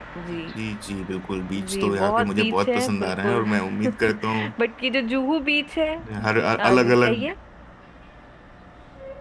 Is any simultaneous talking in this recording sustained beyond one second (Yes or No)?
Yes